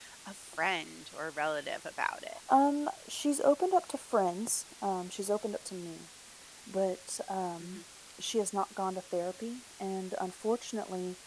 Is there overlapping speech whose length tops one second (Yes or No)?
No